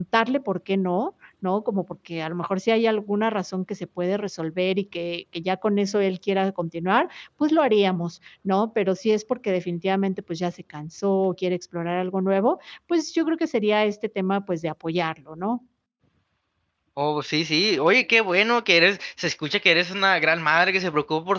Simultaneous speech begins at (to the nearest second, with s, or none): none